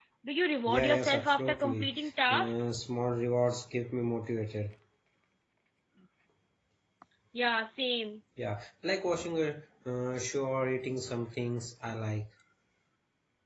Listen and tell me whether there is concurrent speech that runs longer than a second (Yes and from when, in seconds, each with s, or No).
Yes, from 0.7 s